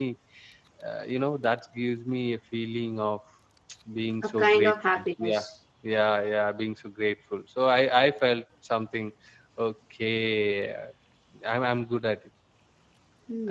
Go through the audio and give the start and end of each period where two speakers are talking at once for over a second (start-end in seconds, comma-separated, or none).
4.2-5.5